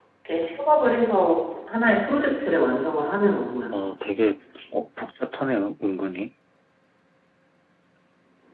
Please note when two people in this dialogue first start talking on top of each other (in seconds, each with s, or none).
none